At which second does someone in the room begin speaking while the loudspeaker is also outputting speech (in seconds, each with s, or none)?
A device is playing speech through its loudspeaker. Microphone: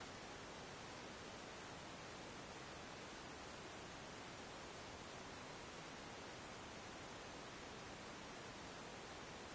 none